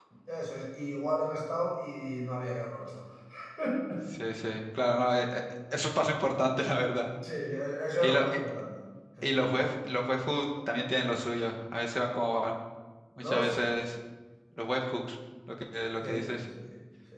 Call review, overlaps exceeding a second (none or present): none